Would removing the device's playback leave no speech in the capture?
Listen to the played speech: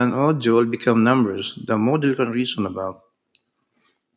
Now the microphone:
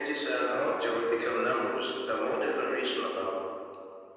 Yes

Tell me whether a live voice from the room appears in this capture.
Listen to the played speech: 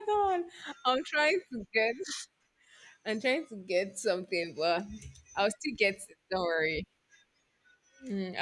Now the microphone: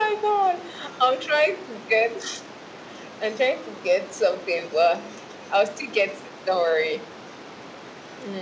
No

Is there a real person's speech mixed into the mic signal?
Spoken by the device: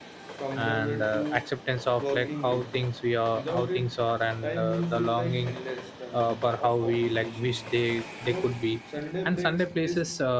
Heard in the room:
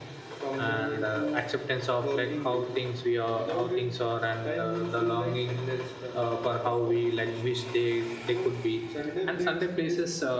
No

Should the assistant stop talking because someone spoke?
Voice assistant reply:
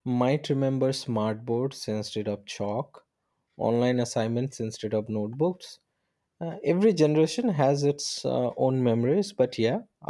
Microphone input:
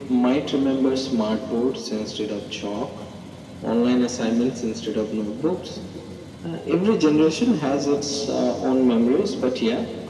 No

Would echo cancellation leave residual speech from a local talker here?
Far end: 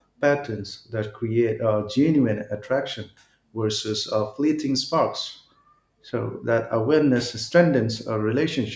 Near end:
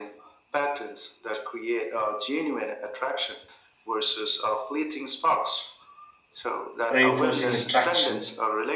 Yes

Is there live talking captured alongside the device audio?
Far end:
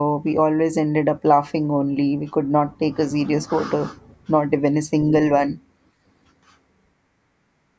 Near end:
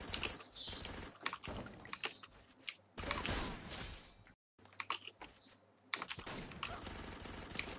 No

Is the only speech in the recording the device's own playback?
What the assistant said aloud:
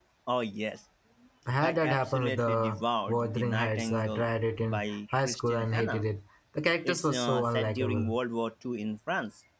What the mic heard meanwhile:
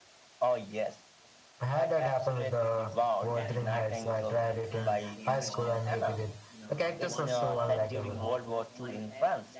No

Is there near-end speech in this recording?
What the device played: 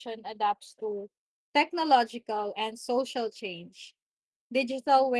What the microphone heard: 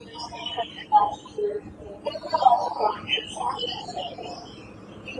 No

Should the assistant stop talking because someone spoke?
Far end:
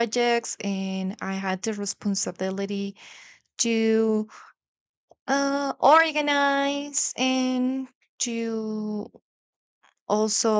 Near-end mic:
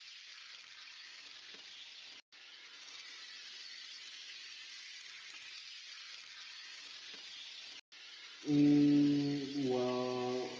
Yes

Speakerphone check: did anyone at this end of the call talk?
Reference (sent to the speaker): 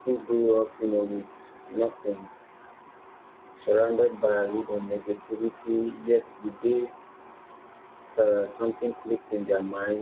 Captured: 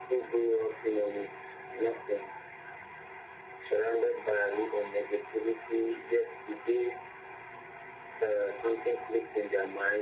No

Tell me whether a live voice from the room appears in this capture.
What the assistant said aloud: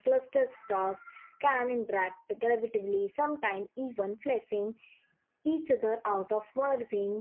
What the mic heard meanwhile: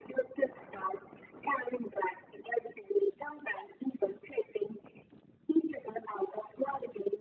No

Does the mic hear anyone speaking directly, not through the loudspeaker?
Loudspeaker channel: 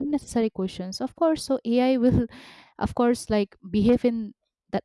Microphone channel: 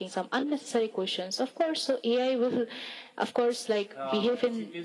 Yes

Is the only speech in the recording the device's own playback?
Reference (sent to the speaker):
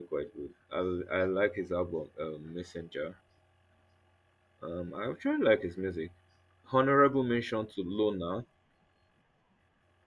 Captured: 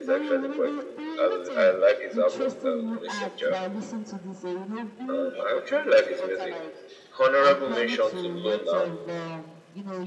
No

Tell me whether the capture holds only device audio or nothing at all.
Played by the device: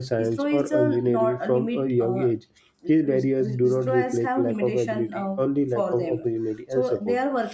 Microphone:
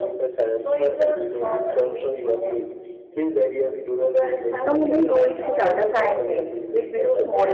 No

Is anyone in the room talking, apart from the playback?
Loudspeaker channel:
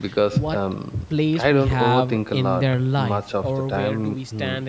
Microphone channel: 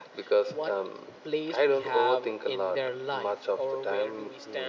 No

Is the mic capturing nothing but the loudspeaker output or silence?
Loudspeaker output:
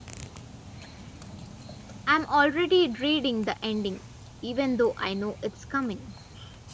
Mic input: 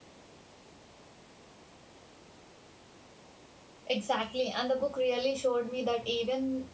No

